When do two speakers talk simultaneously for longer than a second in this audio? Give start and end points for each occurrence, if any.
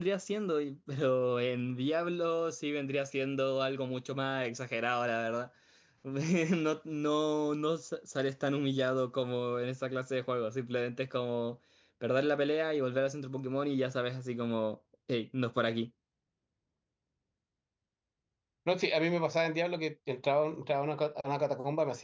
none

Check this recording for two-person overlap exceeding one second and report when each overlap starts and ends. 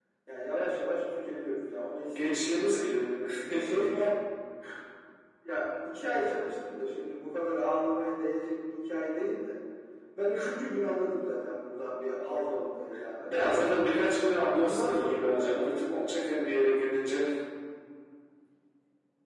14.6-15.8

